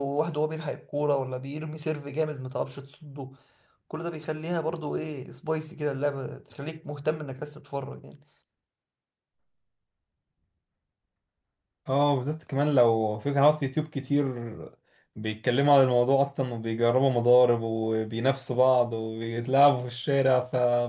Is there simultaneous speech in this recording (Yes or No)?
No